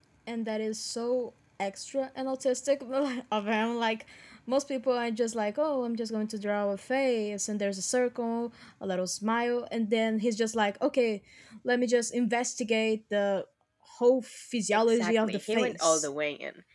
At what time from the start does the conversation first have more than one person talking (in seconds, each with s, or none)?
14.7 s